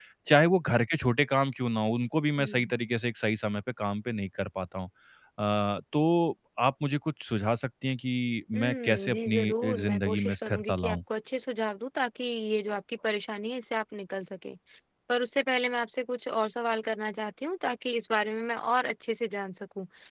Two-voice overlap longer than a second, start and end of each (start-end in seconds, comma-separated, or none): 8.6-11.0